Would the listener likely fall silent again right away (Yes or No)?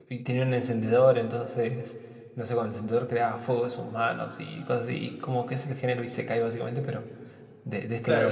No